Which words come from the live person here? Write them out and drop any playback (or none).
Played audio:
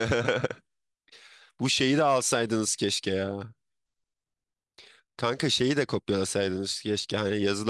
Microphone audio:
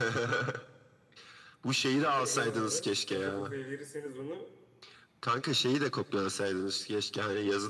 Abi eyvallah. Kafa kafaya verirseniz onu